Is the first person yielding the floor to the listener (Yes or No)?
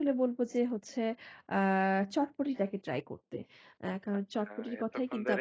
Yes